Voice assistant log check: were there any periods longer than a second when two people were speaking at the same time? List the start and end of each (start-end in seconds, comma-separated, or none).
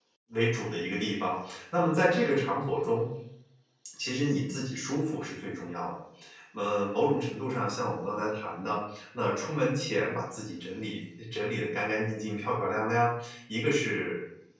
none